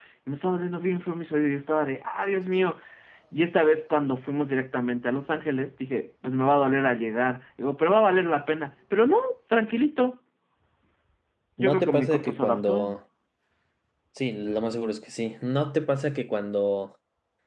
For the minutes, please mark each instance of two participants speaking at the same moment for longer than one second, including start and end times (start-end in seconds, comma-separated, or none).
11.6-12.9